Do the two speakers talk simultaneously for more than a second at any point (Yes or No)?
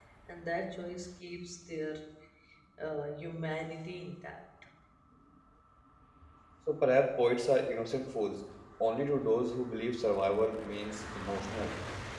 No